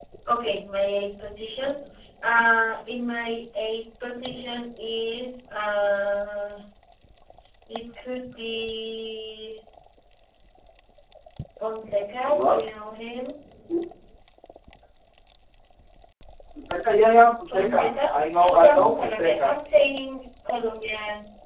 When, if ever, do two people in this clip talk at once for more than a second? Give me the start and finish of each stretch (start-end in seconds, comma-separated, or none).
17.5-19.5